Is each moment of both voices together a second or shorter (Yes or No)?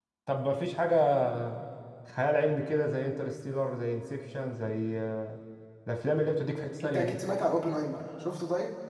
Yes